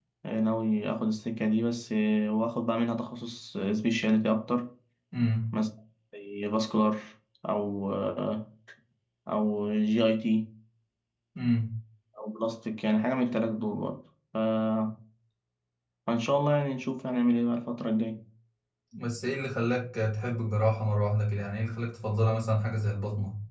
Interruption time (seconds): none

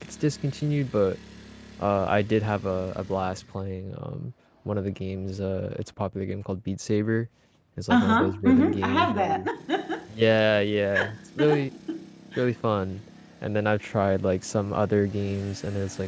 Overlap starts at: 7.9 s

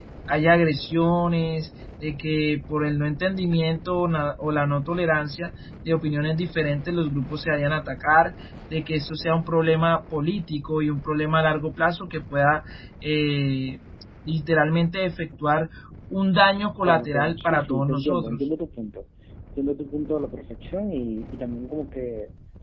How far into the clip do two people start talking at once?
16.8 s

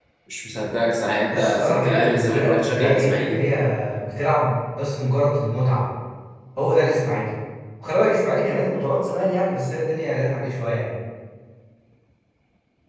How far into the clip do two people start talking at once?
1.3 s

